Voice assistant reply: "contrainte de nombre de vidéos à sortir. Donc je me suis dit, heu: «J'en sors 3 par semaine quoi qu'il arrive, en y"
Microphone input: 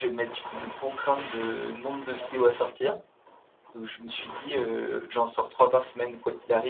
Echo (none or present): present